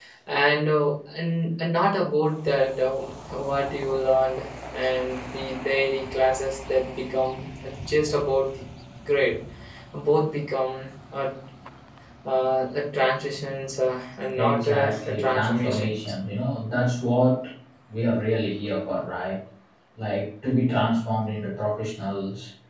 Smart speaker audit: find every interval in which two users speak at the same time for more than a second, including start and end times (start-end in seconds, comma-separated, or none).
14.3-16.0